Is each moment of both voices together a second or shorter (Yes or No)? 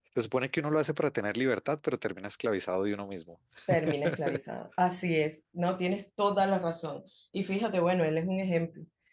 Yes